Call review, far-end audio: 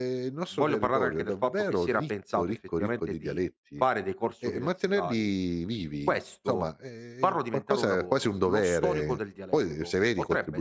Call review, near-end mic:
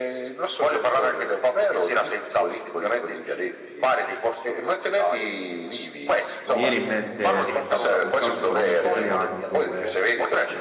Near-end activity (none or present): present